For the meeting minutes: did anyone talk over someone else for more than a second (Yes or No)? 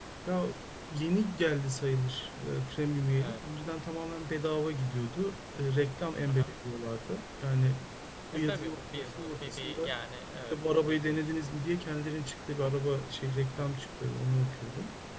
Yes